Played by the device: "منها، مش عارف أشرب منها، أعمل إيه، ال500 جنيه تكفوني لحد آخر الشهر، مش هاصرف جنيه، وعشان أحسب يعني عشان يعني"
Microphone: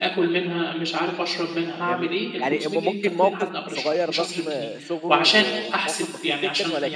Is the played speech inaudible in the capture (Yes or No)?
No